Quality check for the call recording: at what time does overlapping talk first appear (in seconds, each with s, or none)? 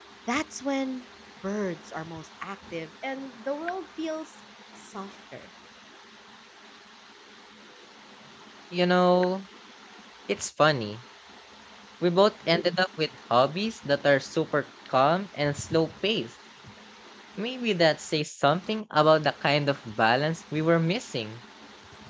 none